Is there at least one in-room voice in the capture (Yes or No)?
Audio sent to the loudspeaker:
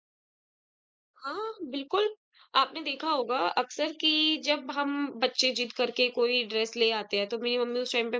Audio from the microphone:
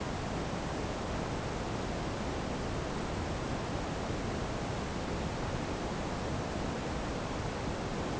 No